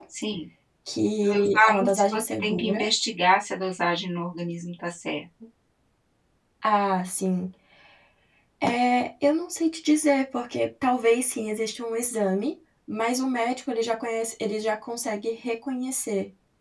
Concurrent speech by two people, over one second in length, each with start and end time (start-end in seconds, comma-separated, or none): 1.2-2.8